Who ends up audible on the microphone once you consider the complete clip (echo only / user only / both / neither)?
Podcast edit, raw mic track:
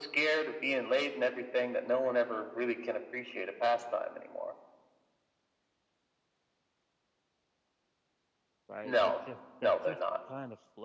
both